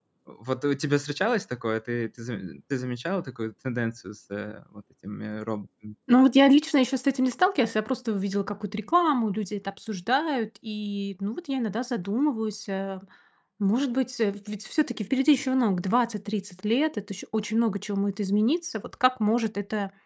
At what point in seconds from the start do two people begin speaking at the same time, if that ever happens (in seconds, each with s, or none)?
none